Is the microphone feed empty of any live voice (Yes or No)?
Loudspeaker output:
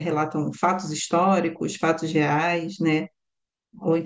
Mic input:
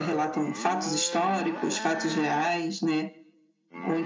Yes